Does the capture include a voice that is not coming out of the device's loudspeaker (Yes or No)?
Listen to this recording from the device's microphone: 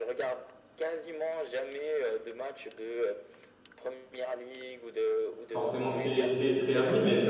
Yes